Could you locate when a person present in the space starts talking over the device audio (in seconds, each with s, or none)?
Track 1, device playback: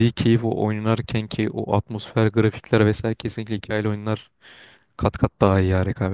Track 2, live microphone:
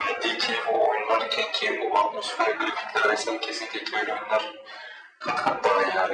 none